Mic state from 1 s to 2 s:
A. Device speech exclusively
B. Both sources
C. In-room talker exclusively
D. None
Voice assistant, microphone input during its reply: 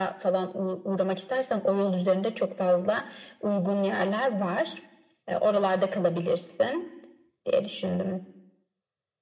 A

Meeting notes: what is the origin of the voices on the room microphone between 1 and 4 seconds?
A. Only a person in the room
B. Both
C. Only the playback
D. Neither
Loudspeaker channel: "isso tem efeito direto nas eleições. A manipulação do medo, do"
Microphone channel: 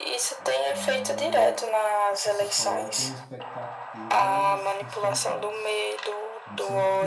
B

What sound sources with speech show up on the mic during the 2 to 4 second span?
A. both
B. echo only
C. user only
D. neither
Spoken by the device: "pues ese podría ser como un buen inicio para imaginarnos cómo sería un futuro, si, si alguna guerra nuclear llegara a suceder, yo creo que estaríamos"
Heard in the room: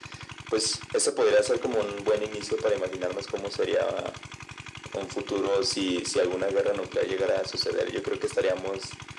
B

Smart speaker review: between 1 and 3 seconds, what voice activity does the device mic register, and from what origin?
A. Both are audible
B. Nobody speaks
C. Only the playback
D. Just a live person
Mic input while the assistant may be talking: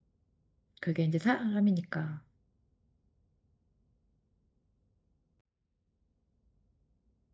D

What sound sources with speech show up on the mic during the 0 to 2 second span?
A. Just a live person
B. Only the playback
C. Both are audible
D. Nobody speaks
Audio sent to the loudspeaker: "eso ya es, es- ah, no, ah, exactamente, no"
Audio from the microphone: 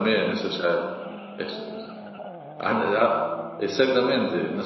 B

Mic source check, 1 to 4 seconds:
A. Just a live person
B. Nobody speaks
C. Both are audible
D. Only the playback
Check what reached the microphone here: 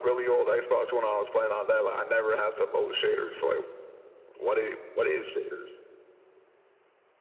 D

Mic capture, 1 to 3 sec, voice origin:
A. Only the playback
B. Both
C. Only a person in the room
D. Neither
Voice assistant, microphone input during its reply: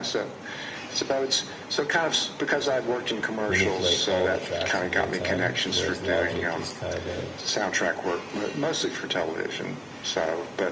A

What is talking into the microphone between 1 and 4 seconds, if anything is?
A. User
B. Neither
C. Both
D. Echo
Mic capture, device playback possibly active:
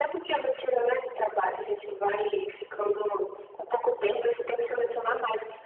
D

